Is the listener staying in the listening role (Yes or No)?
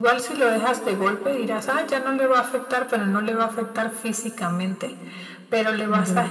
Yes